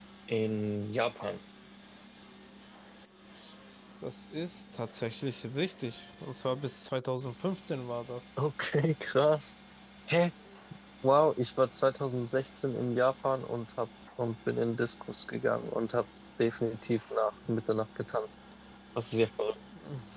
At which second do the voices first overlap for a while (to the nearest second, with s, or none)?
none